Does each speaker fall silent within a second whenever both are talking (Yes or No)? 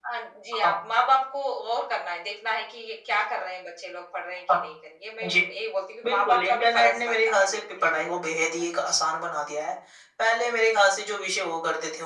No